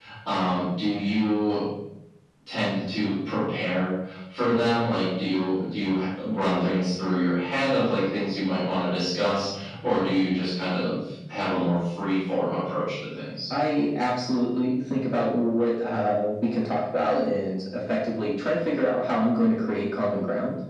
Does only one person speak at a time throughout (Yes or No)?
Yes